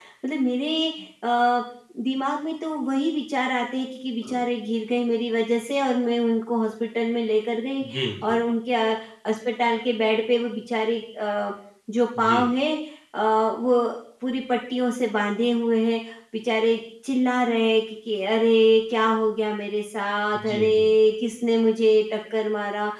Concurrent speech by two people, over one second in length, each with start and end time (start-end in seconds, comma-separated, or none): none